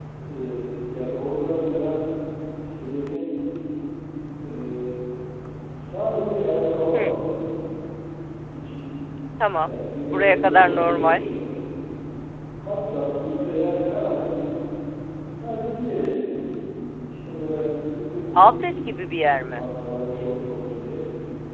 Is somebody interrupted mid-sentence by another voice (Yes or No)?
Yes